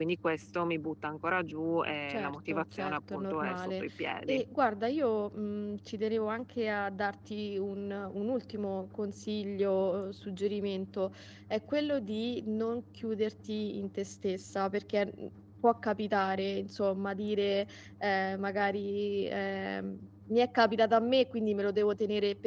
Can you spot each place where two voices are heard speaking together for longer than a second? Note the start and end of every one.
2.1-3.8

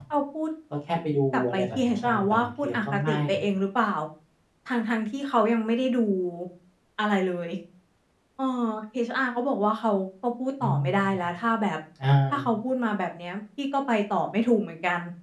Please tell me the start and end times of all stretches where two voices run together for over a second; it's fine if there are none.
1.3-3.2

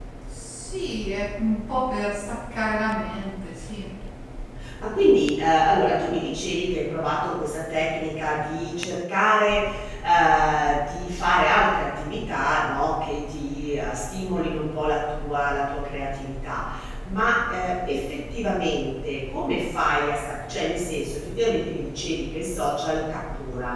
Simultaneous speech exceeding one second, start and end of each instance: none

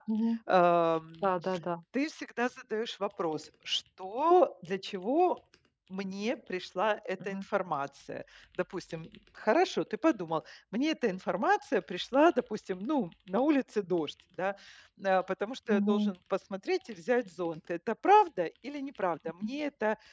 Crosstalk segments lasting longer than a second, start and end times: none

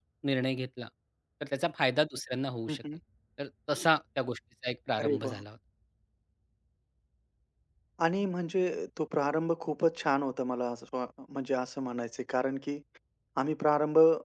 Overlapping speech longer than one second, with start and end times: none

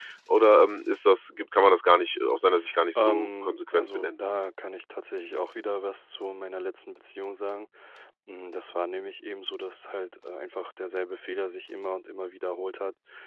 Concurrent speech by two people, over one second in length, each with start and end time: 3.0-4.2

